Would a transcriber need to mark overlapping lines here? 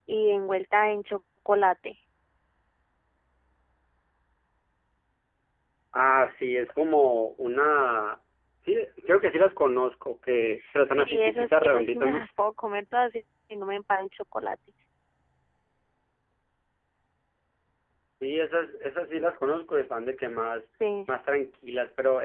Yes, from 10.9 s

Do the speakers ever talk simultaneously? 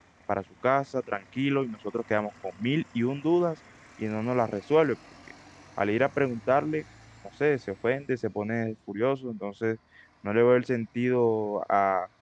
No

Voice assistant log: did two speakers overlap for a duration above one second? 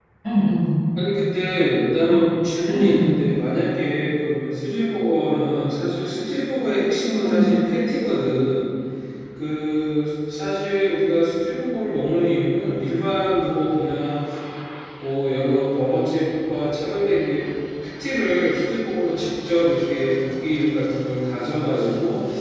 No

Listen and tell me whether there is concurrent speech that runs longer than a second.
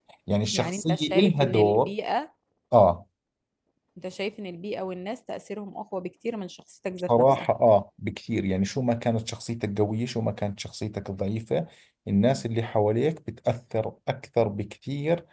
Yes, from 0.5 s

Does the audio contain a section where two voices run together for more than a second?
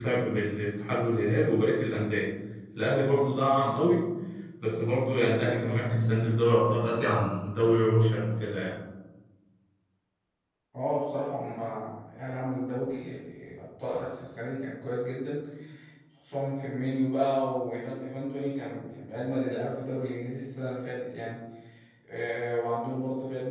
No

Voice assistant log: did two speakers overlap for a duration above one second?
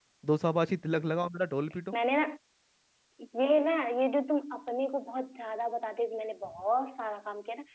No

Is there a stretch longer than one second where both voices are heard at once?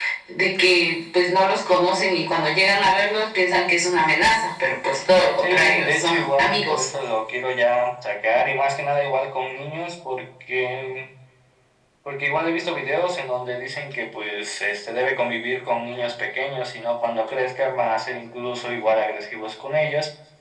Yes, from 5.4 s

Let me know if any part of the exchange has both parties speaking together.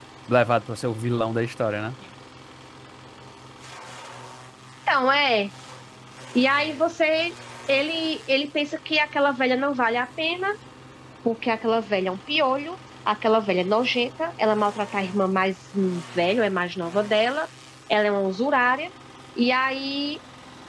No

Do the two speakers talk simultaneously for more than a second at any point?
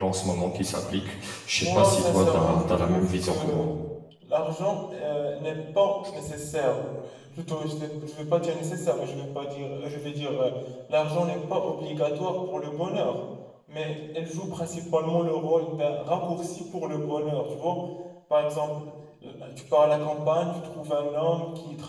Yes, from 1.5 s

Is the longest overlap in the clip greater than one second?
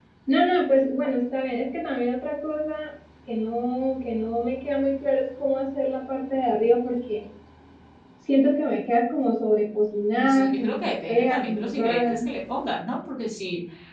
Yes, from 10.2 s

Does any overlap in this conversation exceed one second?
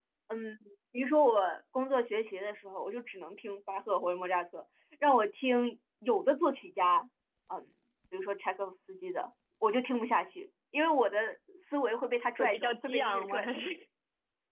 Yes, from 12.4 s

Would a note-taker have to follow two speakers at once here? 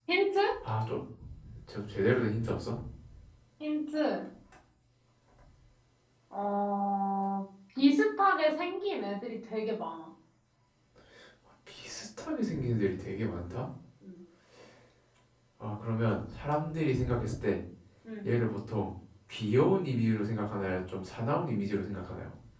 No

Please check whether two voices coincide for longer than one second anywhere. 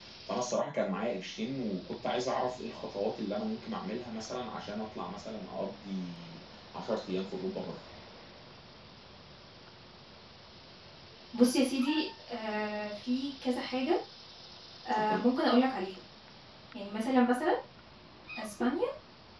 No

